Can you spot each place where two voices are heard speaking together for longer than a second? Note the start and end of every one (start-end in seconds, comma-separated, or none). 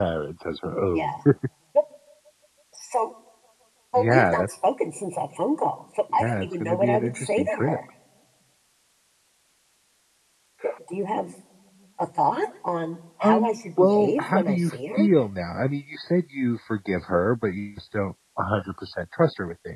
6.1-7.8, 13.2-15.1